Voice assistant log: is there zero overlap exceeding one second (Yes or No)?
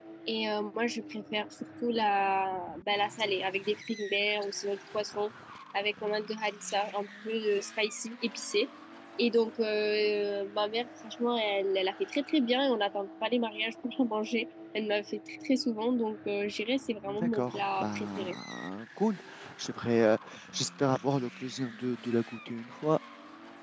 No